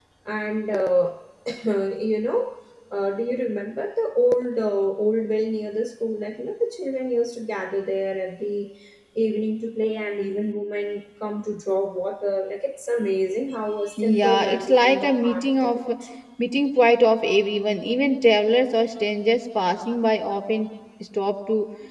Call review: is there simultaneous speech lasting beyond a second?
Yes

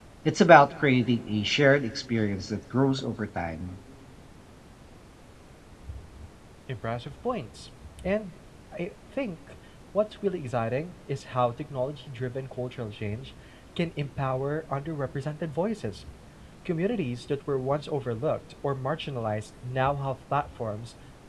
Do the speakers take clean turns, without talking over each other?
Yes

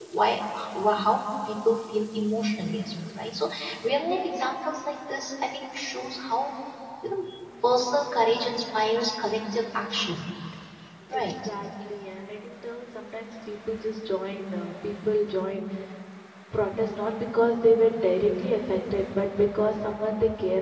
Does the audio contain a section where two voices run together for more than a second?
No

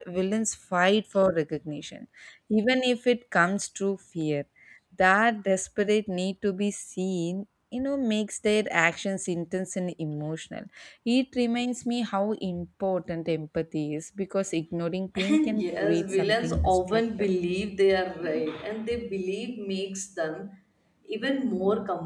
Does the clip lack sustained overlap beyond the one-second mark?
No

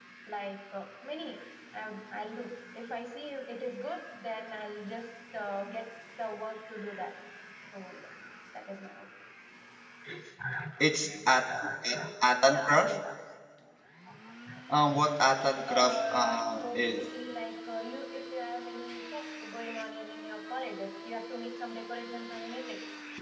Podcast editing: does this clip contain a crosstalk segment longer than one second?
Yes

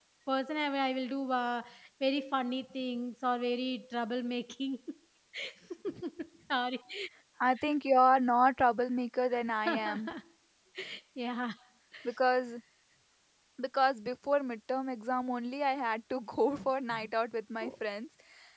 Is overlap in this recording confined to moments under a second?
Yes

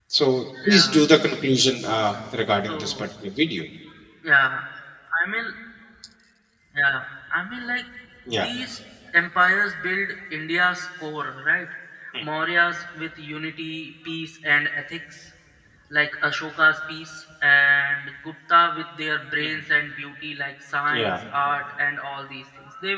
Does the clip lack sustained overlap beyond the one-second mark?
Yes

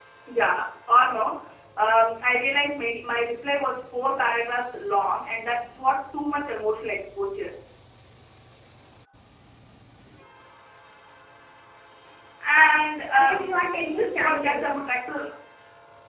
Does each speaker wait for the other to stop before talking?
No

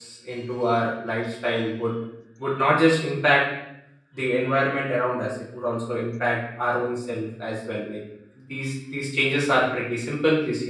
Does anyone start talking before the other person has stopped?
No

